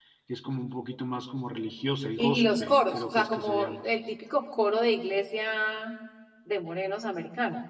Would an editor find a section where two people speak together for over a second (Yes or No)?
Yes